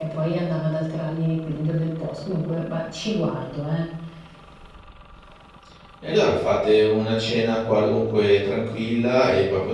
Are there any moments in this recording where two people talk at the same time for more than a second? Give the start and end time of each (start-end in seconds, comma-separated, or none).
none